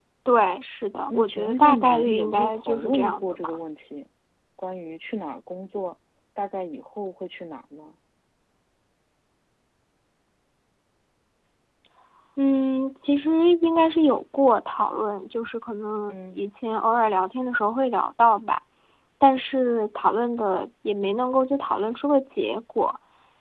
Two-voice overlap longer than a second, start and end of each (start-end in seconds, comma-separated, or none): 1.1-3.6